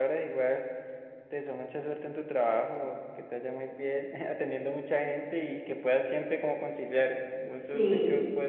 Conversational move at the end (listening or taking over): listening